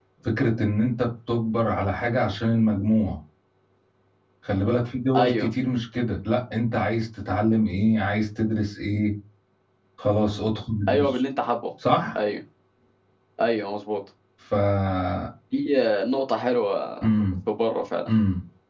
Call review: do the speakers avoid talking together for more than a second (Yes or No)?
Yes